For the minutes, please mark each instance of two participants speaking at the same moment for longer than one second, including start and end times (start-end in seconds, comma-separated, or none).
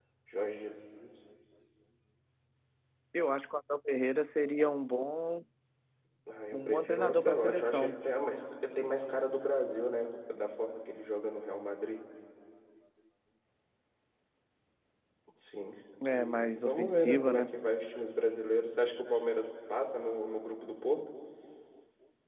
6.5-8.0, 16.1-17.5